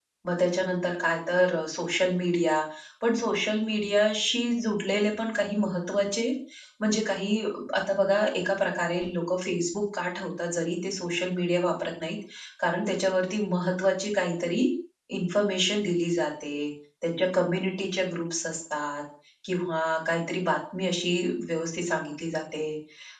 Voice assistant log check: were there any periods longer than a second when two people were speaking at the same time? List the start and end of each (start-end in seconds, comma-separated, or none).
none